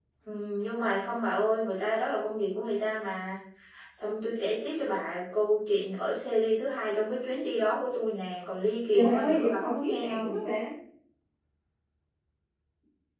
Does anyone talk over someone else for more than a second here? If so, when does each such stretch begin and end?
8.9-10.4

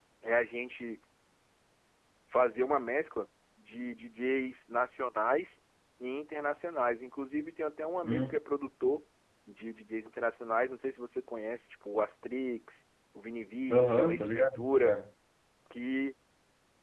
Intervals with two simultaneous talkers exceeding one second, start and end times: 13.7-14.9

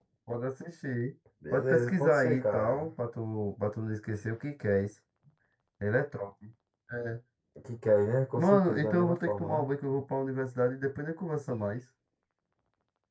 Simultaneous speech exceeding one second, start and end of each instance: 1.5-2.9, 8.4-9.7

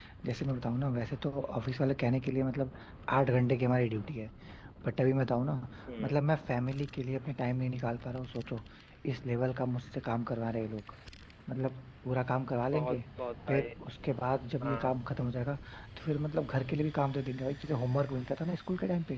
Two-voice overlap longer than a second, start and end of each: none

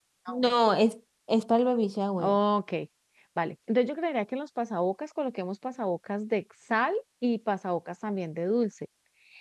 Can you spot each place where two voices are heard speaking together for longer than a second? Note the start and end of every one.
none

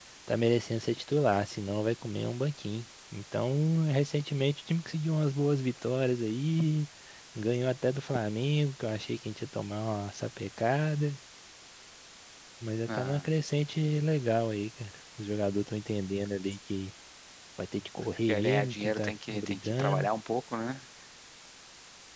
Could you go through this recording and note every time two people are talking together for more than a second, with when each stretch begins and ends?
18.3-20.1

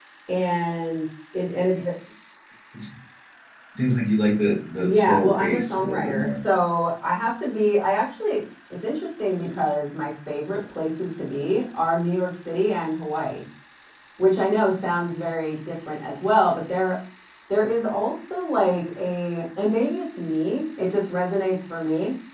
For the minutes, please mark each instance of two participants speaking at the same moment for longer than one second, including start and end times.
4.8-6.4

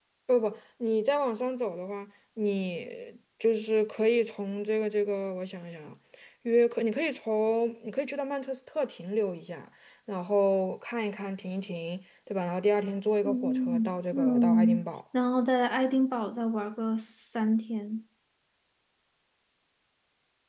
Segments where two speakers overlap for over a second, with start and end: 13.2-14.9

